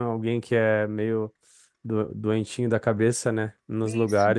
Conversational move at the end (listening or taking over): taking over